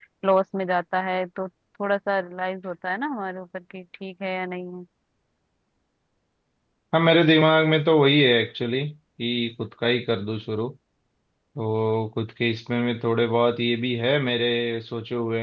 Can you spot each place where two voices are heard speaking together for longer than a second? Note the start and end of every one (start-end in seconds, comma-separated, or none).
none